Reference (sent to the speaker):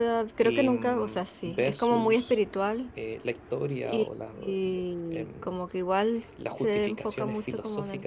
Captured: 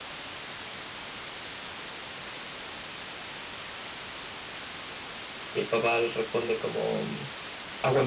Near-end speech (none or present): present